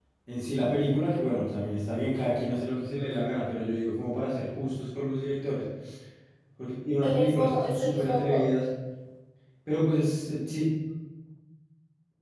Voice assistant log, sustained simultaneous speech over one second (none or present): present